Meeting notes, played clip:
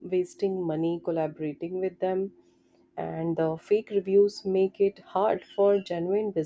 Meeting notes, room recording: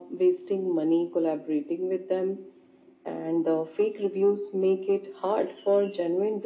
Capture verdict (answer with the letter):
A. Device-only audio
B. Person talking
A